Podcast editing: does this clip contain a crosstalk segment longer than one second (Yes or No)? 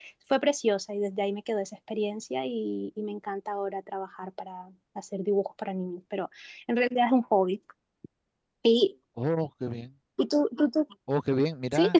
No